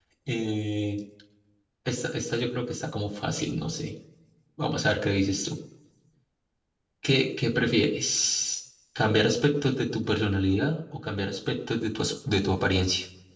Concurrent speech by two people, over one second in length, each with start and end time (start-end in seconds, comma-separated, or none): none